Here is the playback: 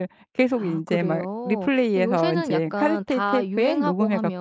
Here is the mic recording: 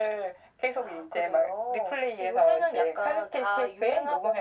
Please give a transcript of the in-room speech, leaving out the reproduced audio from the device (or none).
none